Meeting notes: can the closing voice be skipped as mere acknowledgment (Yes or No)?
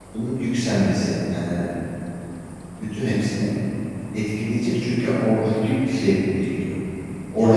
No